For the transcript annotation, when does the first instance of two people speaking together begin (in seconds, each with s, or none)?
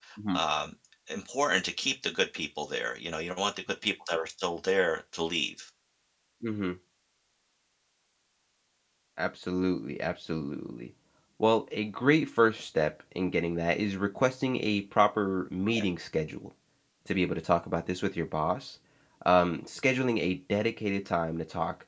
none